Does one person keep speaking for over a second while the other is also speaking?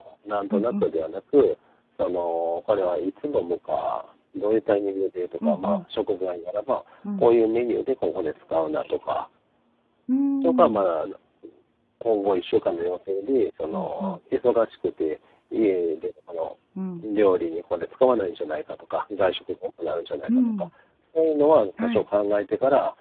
No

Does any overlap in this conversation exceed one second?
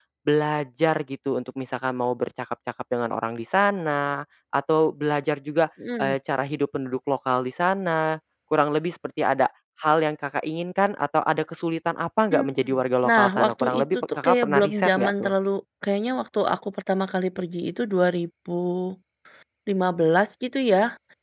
Yes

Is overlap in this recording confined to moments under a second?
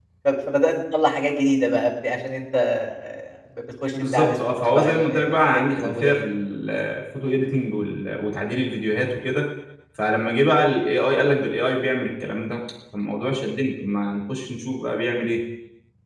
No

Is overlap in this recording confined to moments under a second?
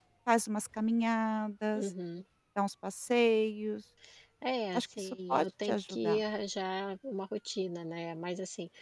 No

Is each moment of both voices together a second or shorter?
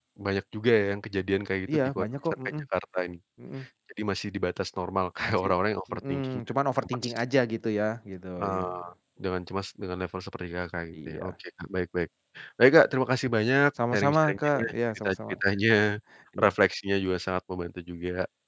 No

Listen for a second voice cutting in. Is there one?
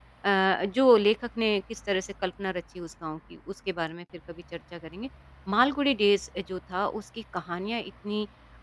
No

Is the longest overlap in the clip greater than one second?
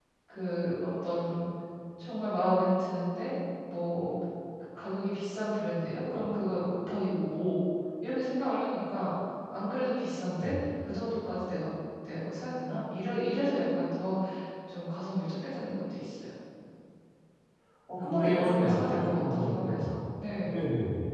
Yes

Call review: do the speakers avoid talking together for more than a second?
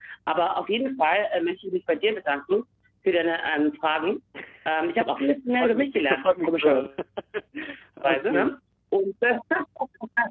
No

